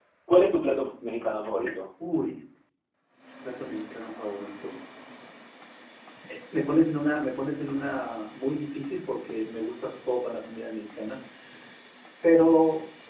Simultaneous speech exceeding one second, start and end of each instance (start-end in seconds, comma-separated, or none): none